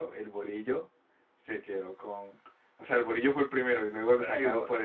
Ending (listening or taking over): listening